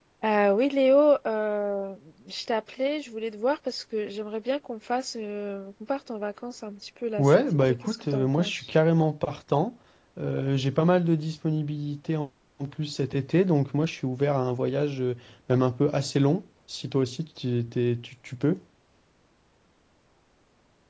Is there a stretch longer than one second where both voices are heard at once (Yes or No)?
Yes